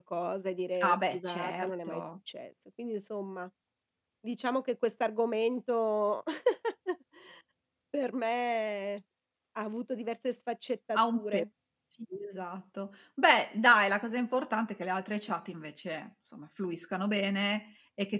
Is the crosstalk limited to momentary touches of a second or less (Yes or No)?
No